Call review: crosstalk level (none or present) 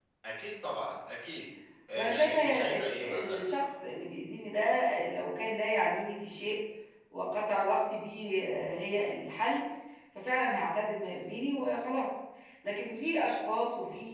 present